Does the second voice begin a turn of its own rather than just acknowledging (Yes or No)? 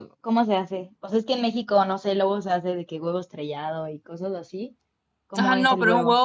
Yes